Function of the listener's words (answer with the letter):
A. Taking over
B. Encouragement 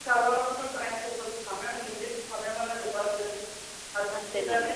A